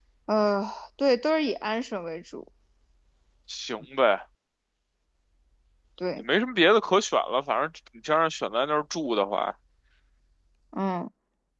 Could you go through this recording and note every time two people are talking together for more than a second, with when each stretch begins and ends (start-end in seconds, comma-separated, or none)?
none